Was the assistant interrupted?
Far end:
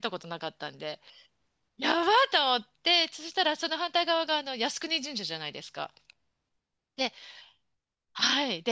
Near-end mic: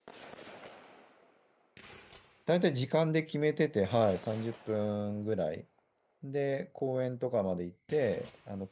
Yes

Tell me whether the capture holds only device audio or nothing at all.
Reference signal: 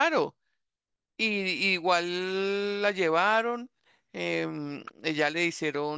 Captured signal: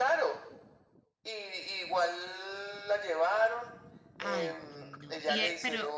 No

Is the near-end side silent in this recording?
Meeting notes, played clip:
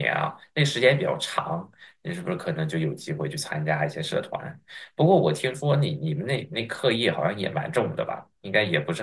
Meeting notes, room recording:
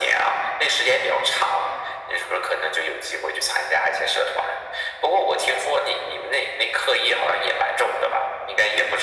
Yes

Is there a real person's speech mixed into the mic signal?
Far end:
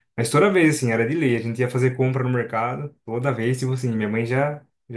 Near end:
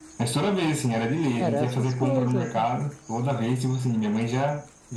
Yes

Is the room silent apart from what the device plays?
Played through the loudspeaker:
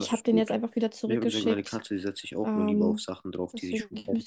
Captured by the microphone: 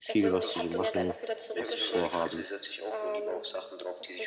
No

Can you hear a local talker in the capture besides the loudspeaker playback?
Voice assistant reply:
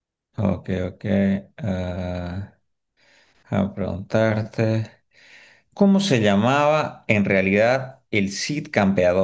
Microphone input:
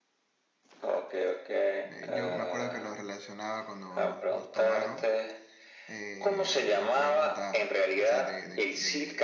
Yes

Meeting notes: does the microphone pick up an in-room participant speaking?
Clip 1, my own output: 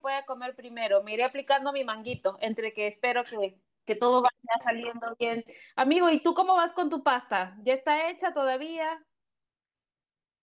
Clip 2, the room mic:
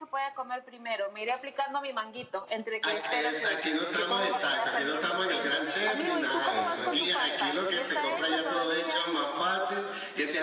Yes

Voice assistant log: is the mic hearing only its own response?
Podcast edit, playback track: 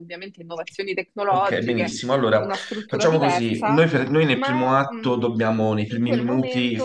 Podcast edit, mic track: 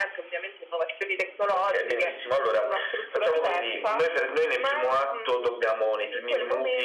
Yes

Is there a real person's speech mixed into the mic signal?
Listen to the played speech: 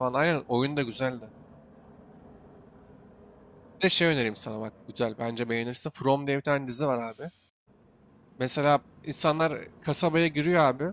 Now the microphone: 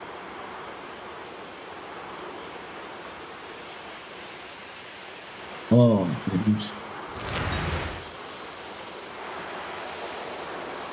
Yes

